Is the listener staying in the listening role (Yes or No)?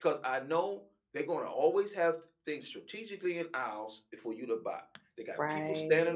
Yes